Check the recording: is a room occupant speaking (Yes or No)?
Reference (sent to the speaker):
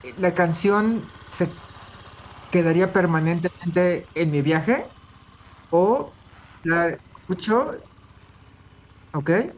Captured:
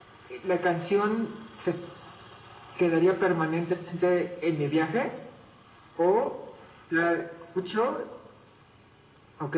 No